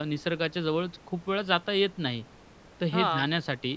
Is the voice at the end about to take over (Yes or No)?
No